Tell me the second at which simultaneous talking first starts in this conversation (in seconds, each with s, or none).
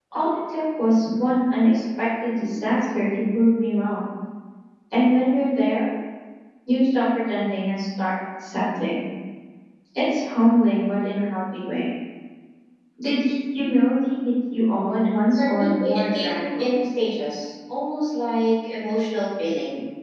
15.4 s